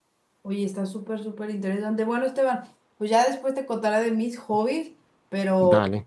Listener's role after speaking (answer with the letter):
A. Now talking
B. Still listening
B